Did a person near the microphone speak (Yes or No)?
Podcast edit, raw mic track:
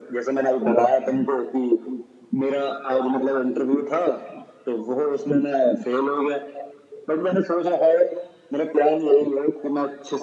No